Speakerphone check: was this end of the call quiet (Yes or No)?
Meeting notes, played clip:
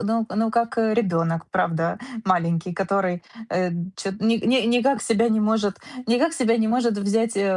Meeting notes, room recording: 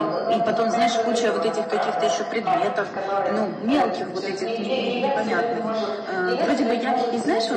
No